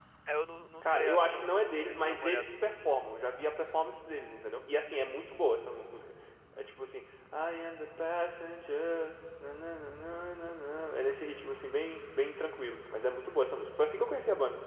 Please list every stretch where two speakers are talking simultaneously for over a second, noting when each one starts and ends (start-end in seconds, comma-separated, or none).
0.8-2.7